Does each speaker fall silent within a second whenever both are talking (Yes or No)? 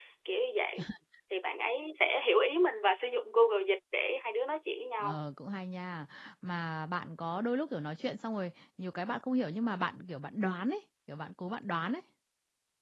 Yes